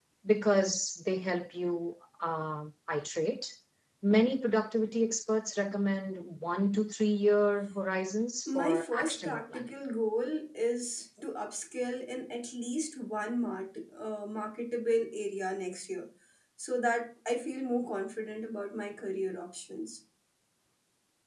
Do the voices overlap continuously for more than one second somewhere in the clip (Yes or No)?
Yes